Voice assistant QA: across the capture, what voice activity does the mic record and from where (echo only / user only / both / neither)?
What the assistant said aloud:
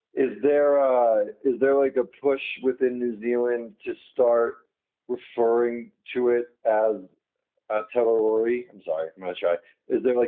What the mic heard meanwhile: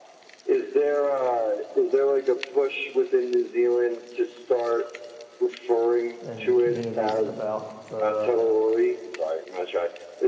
both